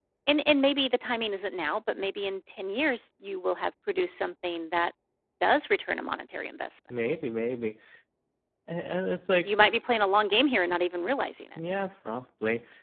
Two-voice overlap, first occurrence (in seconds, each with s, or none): none